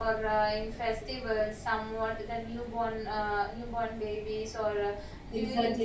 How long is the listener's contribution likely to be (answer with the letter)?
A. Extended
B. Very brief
A